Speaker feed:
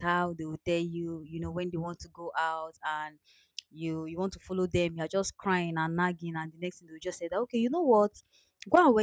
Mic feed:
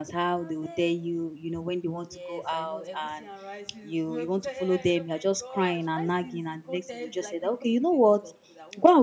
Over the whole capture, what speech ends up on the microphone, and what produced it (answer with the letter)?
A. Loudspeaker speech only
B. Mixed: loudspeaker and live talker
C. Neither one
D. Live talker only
B